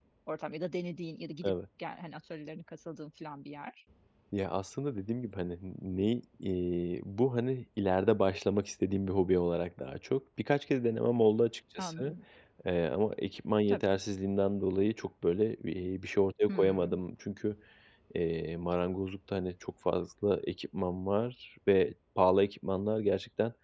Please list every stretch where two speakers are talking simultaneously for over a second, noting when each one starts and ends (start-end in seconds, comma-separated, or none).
none